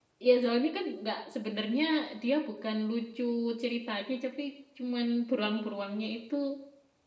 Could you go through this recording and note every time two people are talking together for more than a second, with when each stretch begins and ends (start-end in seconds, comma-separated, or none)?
none